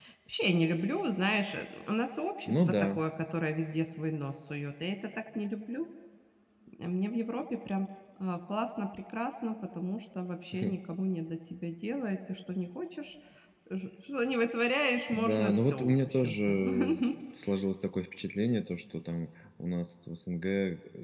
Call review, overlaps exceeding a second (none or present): present